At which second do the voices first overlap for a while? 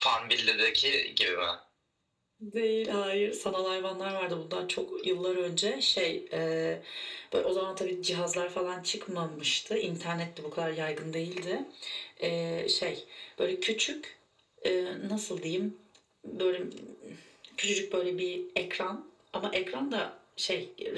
none

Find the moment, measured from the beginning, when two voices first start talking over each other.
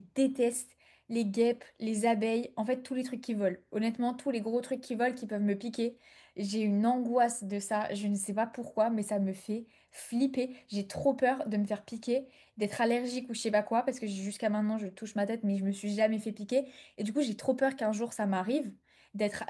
none

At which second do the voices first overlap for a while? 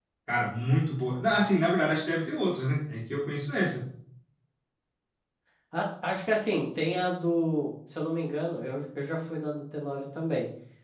none

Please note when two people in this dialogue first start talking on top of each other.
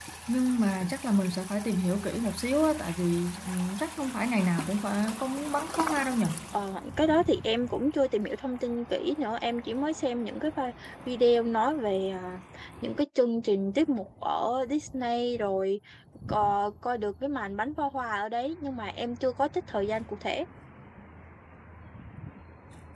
none

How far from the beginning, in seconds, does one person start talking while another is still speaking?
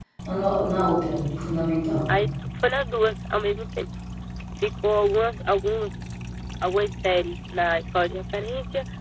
none

